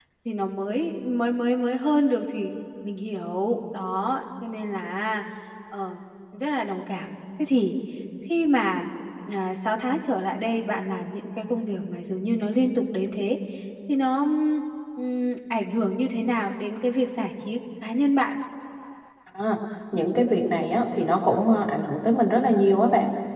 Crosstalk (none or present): none